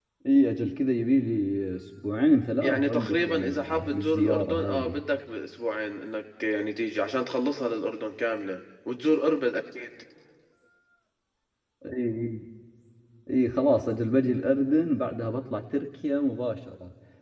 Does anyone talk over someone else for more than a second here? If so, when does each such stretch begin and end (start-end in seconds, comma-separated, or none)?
2.6-5.0